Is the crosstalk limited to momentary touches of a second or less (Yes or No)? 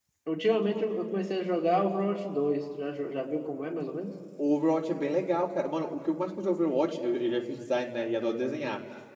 Yes